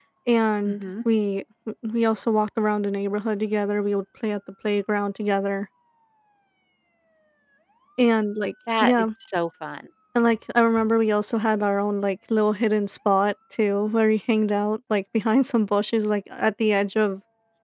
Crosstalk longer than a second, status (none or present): none